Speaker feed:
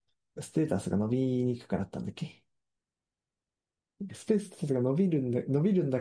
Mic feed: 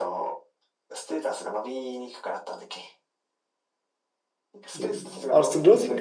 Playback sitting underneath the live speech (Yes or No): Yes